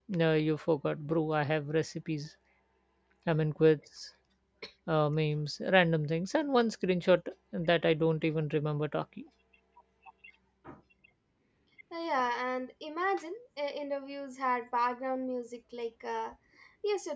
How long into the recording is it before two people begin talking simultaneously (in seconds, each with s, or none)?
none